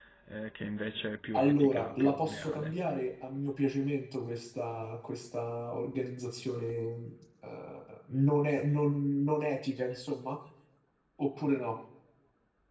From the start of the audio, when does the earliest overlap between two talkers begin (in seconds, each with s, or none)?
1.3 s